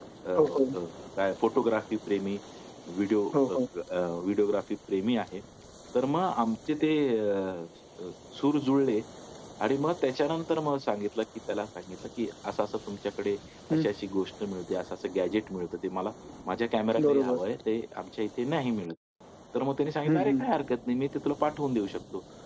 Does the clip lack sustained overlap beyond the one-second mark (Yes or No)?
Yes